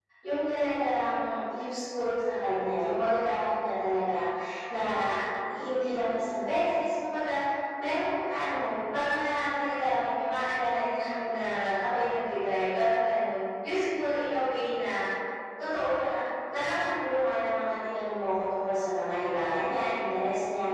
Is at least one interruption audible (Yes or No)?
No